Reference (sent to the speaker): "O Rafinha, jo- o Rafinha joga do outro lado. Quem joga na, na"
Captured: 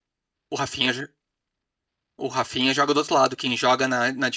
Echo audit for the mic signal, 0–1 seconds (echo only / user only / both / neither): echo only